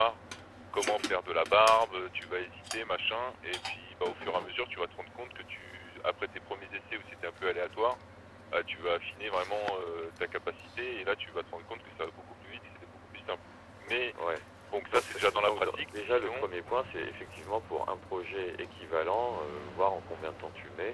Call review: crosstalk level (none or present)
present